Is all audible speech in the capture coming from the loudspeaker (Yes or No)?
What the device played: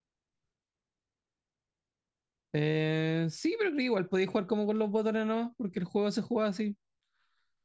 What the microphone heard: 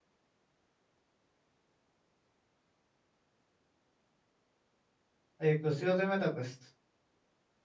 No